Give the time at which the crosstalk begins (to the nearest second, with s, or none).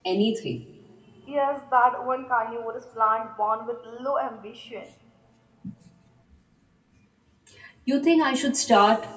none